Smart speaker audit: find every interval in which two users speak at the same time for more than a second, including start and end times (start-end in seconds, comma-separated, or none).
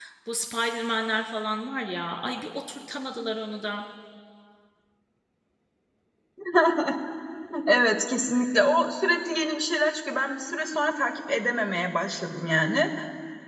none